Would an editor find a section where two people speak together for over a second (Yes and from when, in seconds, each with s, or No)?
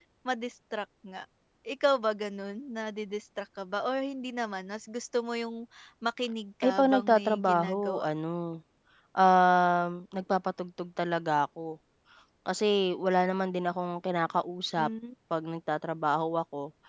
Yes, from 6.6 s